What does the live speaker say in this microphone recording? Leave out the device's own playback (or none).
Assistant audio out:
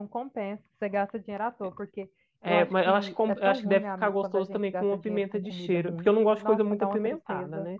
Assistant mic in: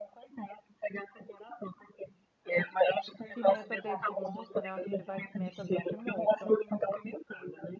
Pimenta dedo de moça, né? Acho que vai pimenta dedo de moça.